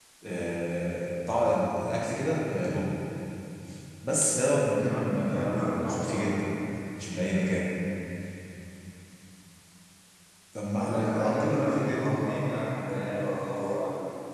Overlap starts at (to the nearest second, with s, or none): 5 s